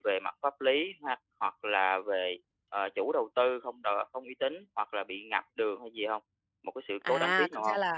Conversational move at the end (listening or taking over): taking over